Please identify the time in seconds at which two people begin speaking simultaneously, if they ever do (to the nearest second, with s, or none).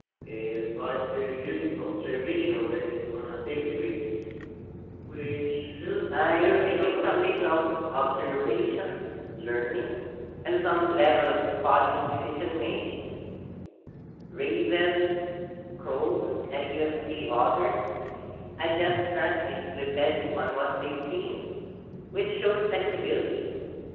6 s